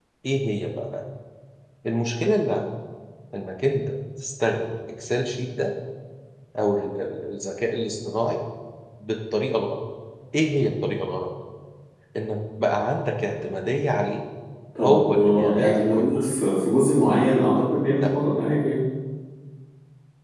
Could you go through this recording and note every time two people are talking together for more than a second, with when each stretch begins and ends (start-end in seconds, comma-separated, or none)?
14.8-16.2